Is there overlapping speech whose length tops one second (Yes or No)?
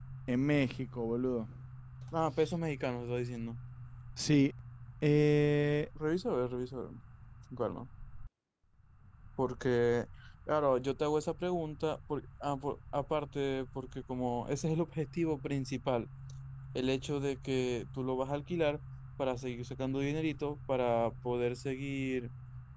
No